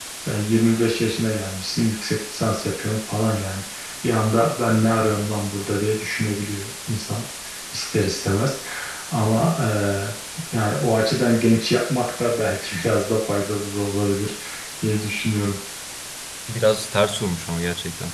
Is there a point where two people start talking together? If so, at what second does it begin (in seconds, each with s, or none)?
none